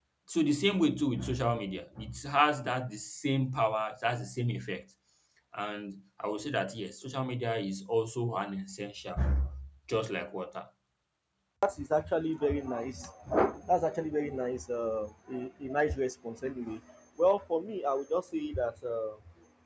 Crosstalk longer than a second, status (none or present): none